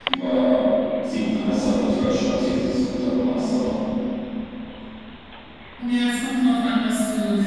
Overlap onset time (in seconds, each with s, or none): none